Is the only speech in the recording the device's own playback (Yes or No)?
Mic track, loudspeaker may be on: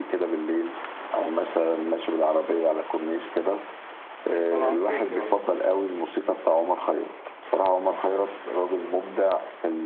No